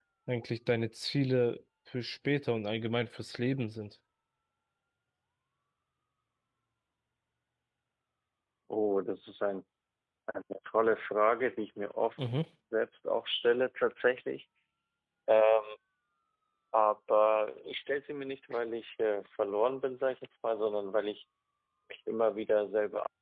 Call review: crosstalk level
none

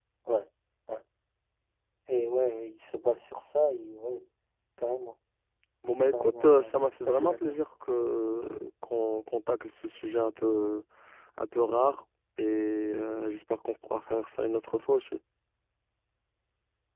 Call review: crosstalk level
present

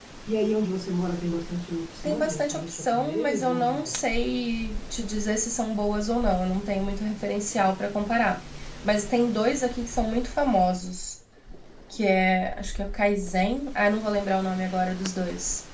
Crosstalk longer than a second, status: present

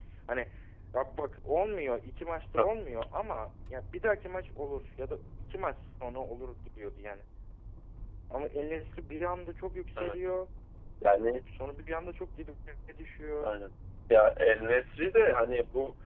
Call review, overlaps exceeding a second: none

